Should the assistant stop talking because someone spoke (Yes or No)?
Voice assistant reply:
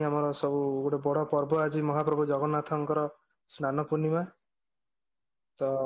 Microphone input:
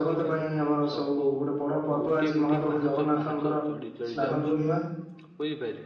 Yes